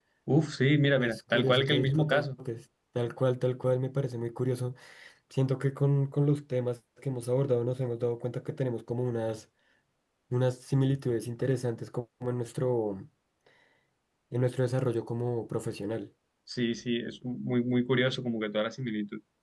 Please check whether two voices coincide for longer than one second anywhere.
Yes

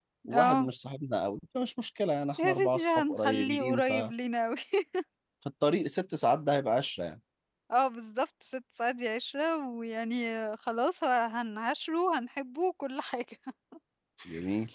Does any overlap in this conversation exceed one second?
Yes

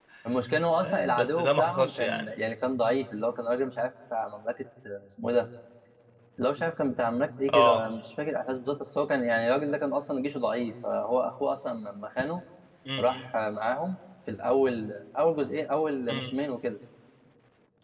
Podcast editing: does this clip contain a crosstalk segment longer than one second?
Yes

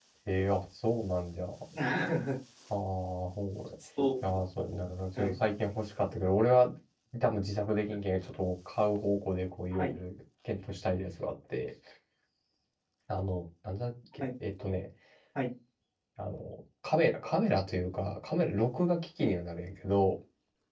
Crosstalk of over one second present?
No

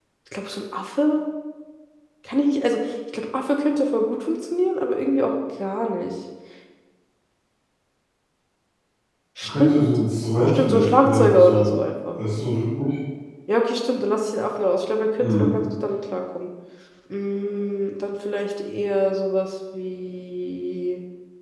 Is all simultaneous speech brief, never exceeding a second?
No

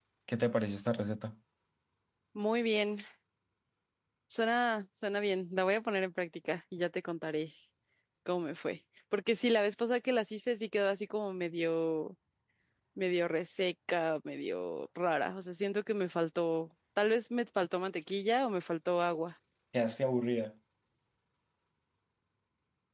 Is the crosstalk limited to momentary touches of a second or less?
Yes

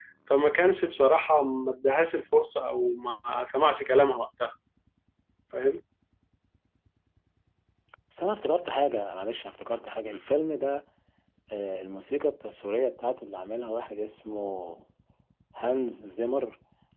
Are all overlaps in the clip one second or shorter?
Yes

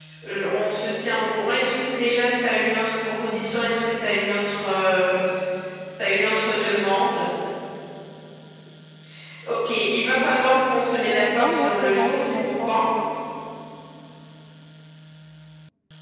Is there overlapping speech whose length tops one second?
Yes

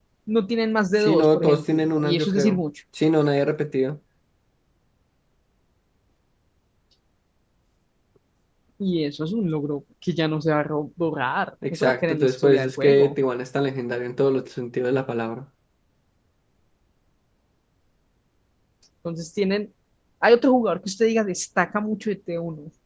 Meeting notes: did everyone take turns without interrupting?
No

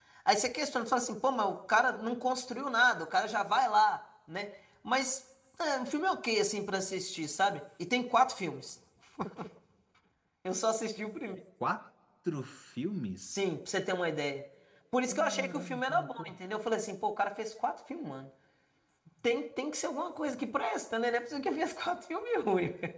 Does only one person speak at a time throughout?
No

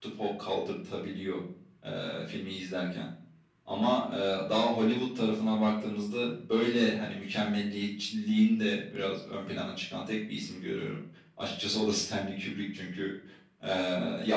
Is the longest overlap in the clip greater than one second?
No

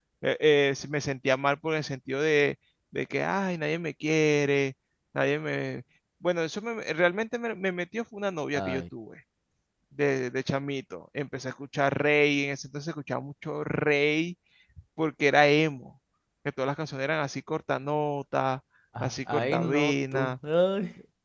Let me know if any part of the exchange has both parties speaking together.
Yes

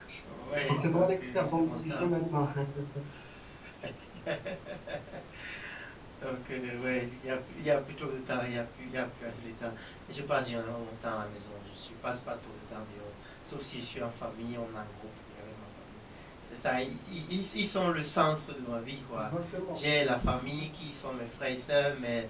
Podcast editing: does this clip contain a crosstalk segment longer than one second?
Yes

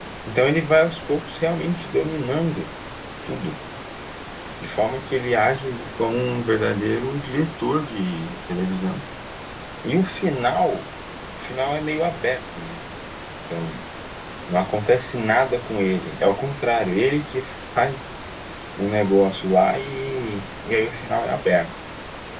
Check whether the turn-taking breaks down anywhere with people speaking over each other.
No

